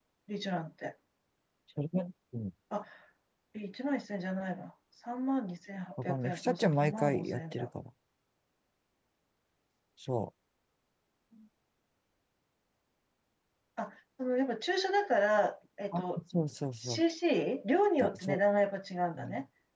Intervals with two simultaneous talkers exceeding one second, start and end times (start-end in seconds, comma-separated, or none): 6.0-7.7